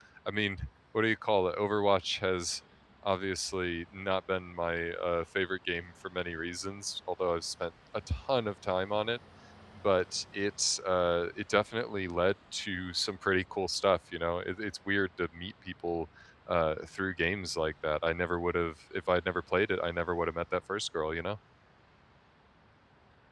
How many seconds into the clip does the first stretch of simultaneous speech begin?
none

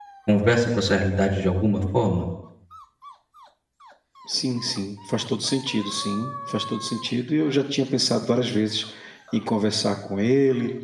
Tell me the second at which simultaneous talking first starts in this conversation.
none

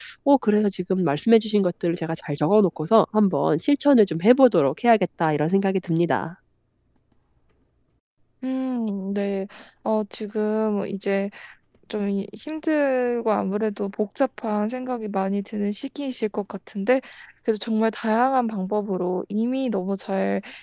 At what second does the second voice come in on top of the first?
none

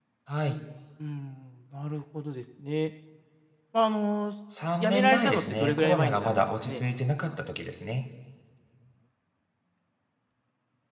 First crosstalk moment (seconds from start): 5 s

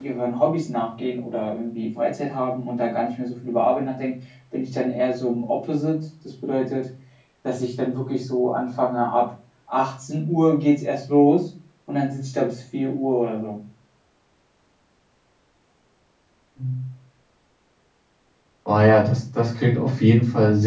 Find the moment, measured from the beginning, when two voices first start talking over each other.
none

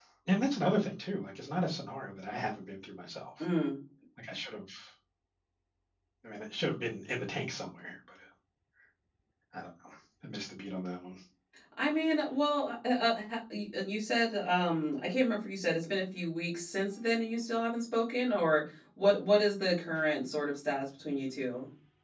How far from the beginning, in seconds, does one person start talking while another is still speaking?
none

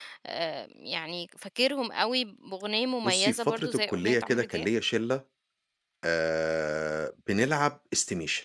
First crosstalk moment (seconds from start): 3 s

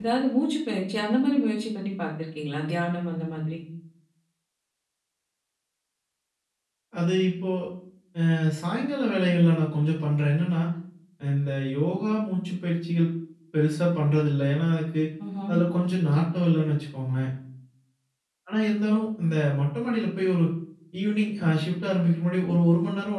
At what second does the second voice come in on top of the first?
none

